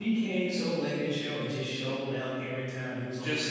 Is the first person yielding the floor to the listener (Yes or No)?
Yes